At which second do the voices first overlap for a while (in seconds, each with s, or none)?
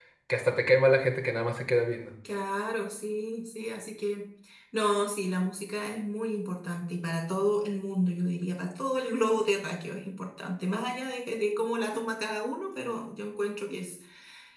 none